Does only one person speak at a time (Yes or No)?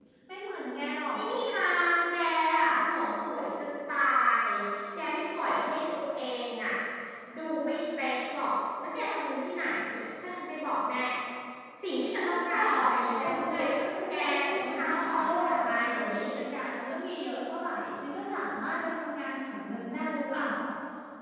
No